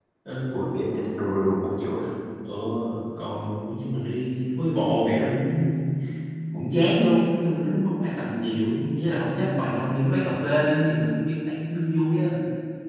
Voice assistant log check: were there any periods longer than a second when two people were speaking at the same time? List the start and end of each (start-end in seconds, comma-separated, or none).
none